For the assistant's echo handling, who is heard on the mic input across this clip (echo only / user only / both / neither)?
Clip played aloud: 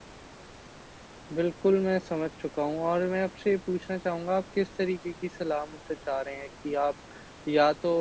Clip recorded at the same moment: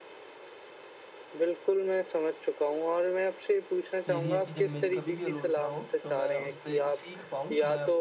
both